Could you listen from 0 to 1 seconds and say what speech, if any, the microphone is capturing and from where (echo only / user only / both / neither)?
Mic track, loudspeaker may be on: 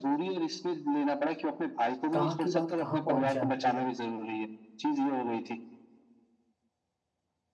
echo only